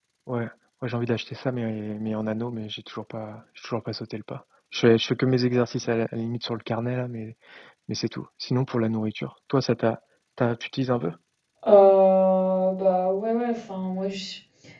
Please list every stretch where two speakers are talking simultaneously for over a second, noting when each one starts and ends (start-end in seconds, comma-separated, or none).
none